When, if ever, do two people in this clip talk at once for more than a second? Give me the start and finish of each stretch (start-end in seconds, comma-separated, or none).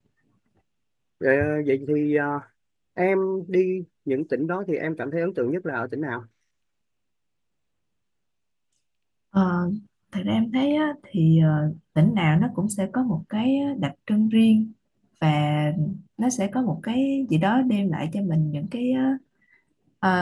none